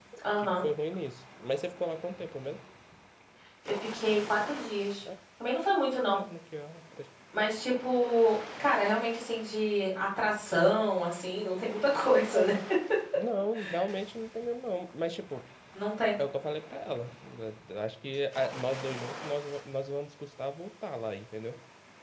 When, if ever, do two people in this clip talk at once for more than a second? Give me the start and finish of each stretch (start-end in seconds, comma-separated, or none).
none